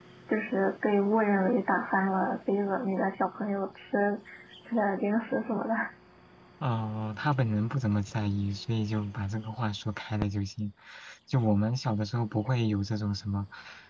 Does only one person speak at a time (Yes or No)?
Yes